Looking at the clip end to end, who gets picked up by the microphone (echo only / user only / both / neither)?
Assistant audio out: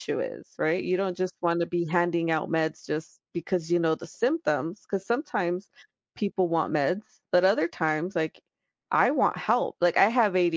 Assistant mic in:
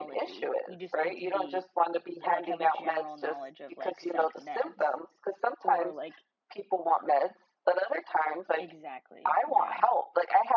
both